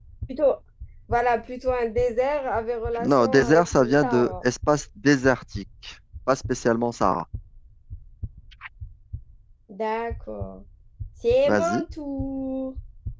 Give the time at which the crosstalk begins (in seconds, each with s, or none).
3.0 s